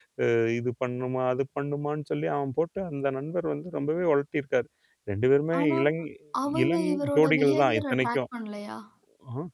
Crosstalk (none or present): present